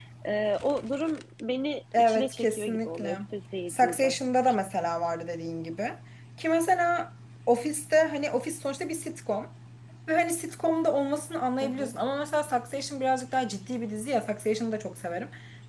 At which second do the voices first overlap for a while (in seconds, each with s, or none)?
2.0 s